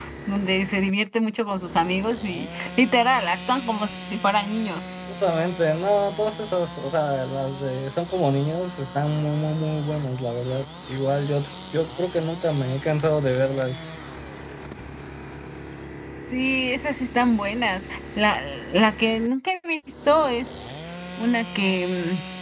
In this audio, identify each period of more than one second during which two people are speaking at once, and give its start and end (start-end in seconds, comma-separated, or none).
none